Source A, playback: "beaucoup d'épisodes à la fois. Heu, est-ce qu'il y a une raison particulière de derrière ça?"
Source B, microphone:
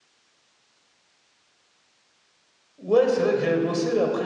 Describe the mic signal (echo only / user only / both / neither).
user only